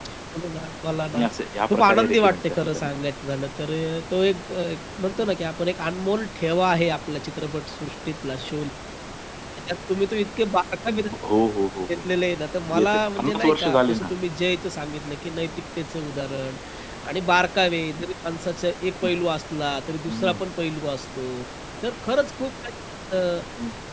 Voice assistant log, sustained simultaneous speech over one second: present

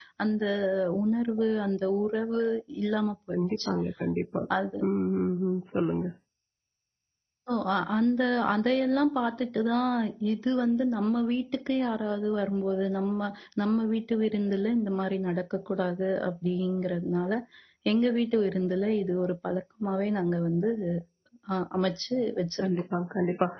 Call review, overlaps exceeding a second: none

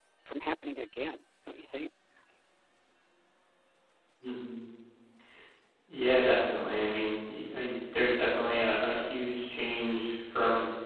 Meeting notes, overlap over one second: none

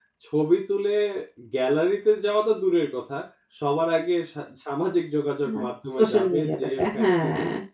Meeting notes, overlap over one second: present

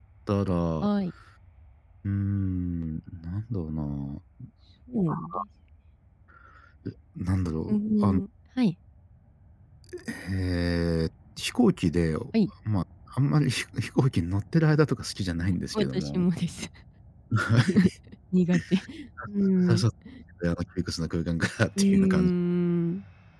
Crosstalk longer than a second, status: none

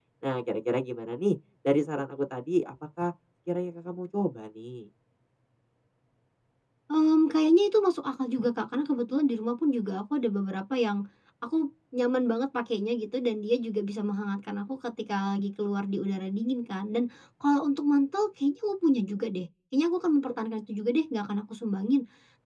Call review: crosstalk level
none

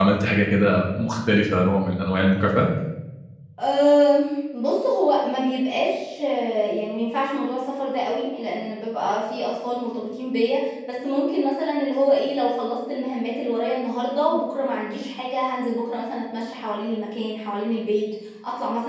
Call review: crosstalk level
none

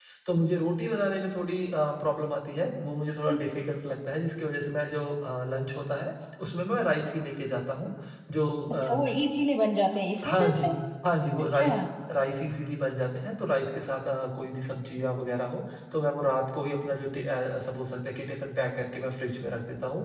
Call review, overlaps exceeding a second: none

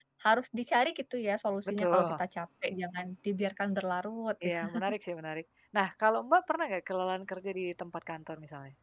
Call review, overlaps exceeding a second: none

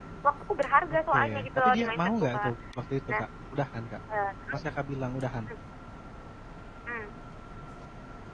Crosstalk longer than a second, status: present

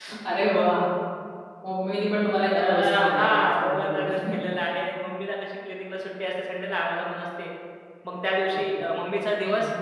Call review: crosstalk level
present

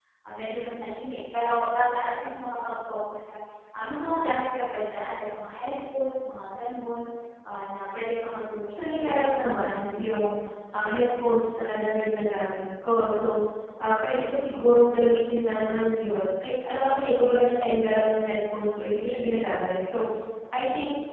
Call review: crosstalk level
present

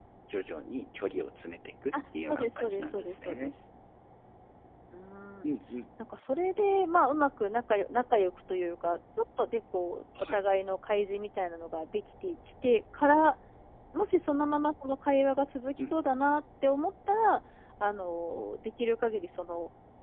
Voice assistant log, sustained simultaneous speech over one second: present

